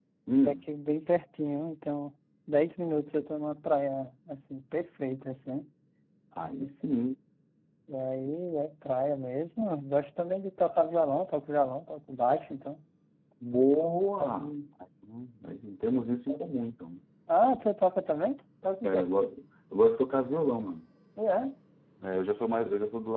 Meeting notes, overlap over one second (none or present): none